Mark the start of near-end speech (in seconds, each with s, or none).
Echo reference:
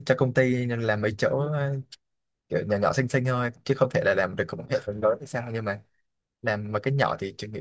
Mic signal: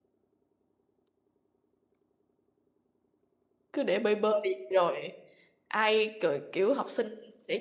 3.7 s